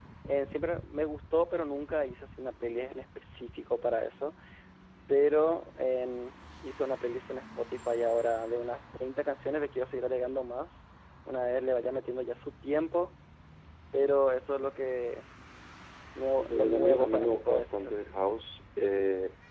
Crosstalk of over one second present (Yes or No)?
Yes